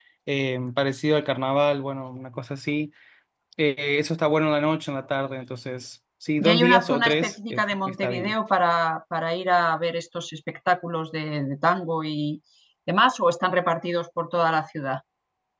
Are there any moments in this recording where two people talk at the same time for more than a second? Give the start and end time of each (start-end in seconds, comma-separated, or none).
6.4-8.3